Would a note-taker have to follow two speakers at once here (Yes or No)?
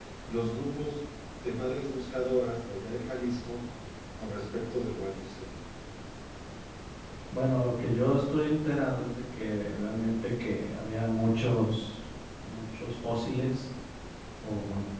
No